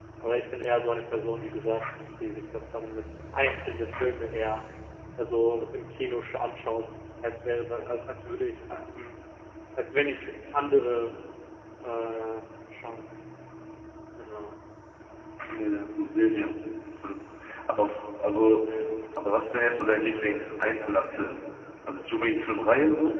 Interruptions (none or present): none